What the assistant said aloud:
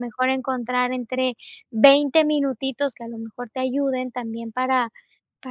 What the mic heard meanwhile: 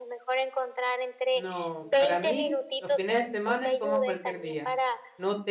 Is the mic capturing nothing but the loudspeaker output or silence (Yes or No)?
No